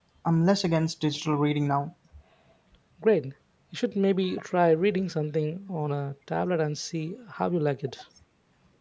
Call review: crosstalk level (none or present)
none